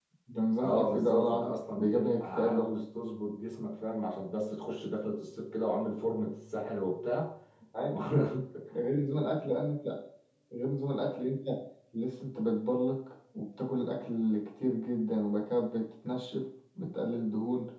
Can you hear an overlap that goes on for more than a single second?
Yes, from 0.6 s

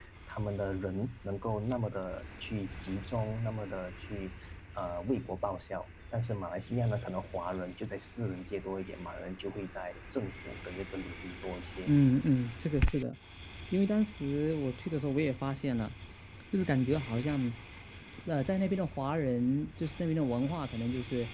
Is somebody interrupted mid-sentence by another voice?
No

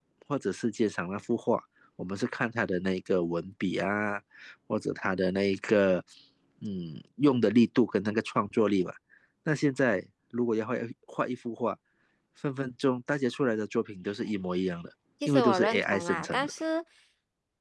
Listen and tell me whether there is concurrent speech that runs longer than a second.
Yes, from 15.2 s

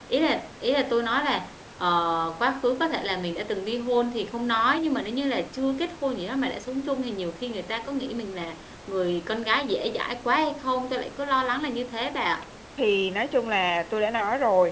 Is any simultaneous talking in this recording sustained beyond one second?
No

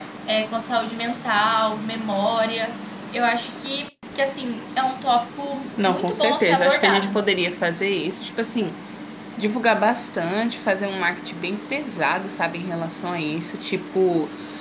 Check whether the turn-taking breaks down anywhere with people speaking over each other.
Yes, from 5.8 s

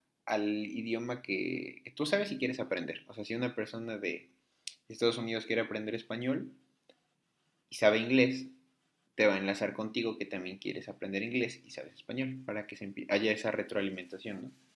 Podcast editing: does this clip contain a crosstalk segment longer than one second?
No

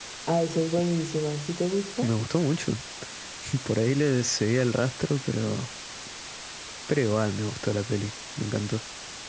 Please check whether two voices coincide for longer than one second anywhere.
No

